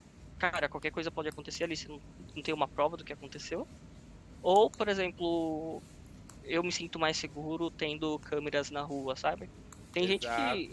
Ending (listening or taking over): listening